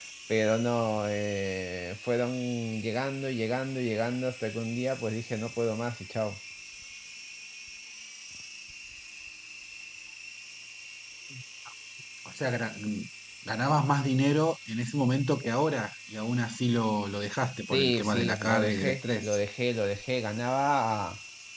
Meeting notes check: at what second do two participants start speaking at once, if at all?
17.7 s

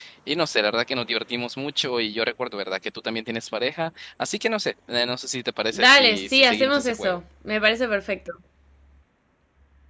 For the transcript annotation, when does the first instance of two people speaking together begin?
5.7 s

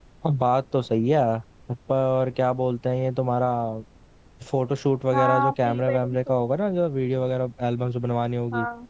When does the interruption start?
5.1 s

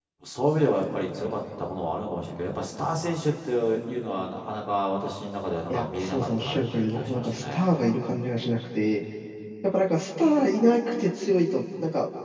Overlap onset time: 5.7 s

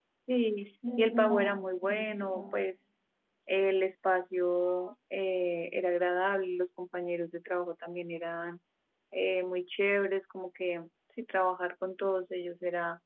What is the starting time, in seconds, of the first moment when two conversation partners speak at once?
1.0 s

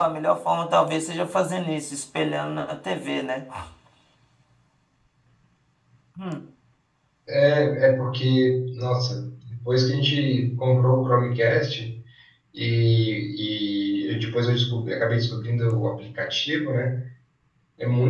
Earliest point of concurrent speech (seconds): none

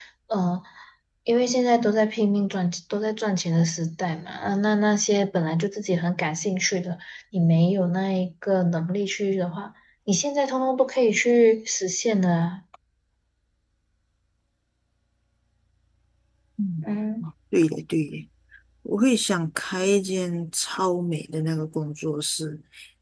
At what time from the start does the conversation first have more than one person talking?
none

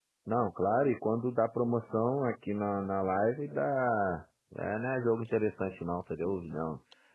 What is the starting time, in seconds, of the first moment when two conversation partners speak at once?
none

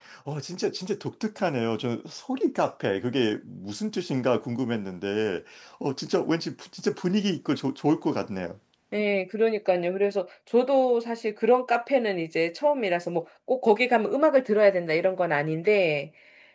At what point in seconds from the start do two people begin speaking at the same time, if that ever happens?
none

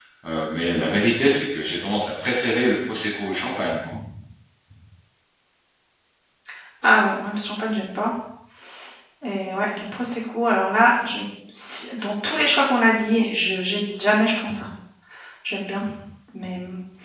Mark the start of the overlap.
none

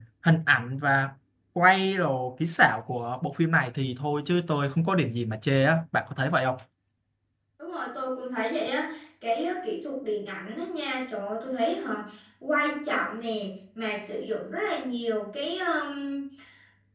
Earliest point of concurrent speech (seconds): none

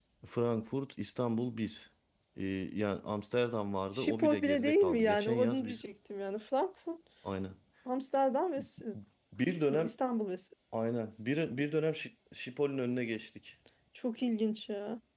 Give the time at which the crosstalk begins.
3.9 s

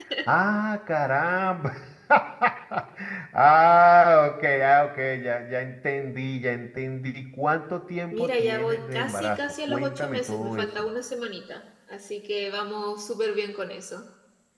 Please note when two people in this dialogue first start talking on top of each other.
8.1 s

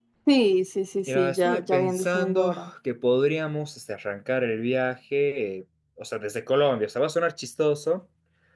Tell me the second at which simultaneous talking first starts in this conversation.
1.1 s

